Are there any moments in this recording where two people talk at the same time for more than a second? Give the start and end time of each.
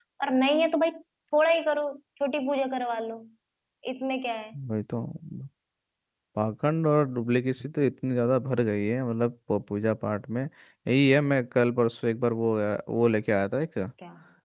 none

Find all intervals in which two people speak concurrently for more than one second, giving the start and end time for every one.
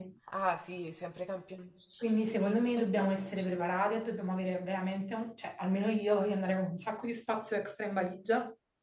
2.0-3.9

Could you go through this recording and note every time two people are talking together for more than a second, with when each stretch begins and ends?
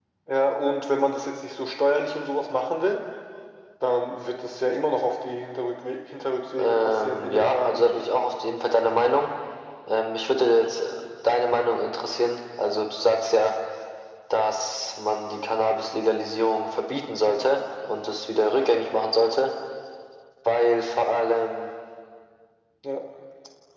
6.6-8.1

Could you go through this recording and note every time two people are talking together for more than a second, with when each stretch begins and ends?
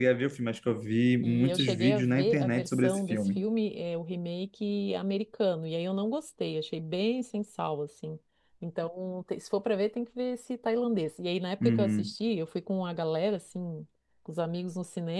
1.2-3.4

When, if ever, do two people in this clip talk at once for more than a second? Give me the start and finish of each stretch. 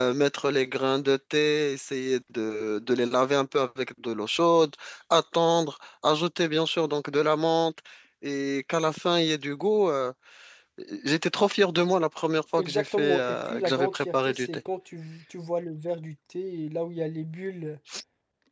12.6-14.6

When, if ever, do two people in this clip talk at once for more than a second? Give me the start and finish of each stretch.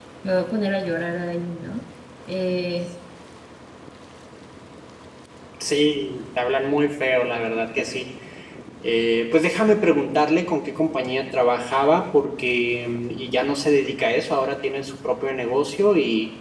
none

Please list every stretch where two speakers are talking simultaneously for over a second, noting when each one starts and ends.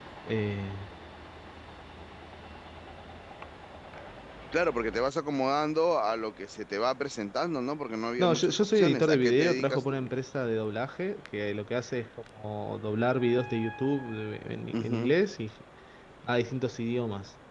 8.2-10.1

